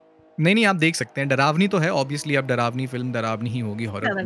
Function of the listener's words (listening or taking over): listening